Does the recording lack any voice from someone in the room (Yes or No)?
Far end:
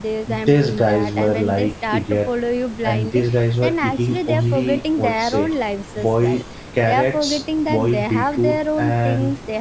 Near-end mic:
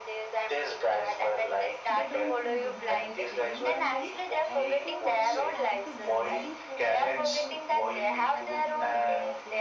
No